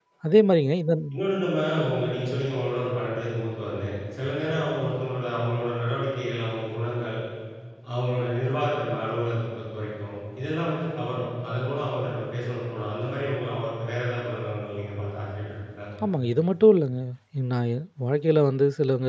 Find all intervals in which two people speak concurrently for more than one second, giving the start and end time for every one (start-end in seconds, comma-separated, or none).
none